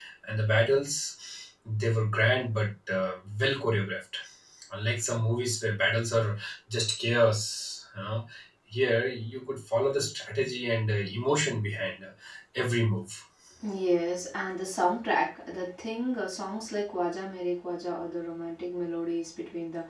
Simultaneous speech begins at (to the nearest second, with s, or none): none